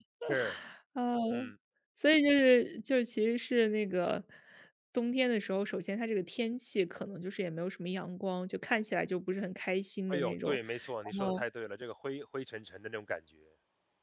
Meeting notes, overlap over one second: none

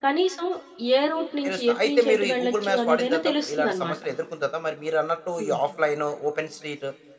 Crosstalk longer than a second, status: present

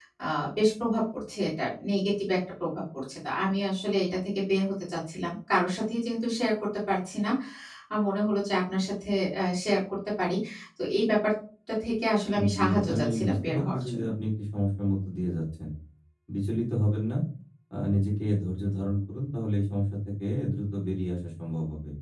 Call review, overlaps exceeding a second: present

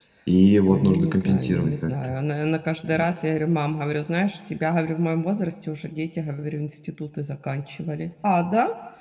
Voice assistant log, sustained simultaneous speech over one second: present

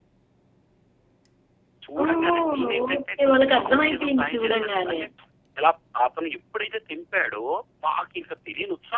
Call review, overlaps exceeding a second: present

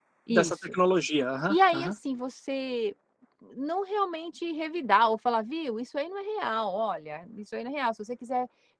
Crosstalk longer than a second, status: none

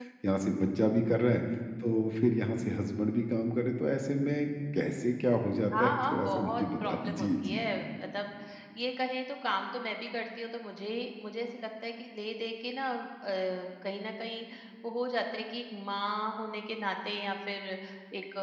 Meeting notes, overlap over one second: present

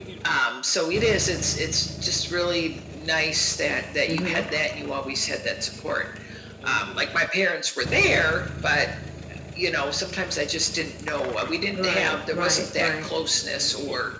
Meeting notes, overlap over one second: present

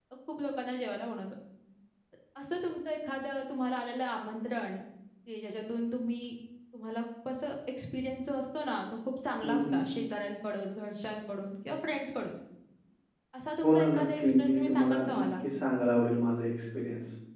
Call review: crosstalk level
present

